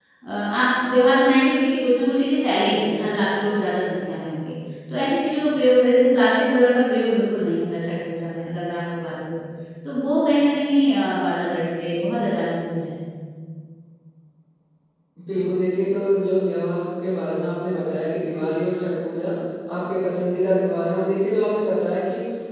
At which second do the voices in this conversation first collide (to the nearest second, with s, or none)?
none